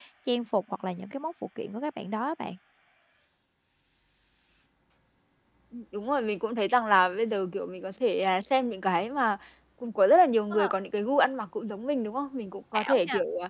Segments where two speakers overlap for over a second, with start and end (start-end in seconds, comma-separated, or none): none